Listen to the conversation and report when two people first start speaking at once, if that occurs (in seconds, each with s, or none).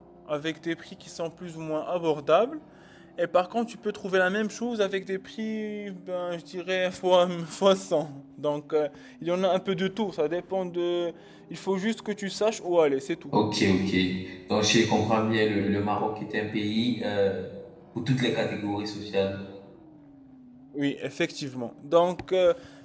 none